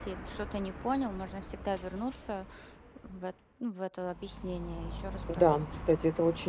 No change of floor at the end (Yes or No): No